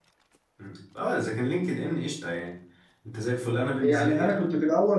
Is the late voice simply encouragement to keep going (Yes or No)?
No